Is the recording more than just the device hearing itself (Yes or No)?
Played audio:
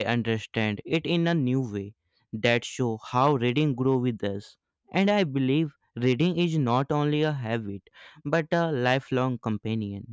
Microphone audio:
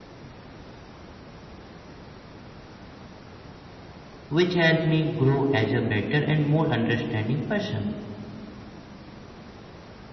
Yes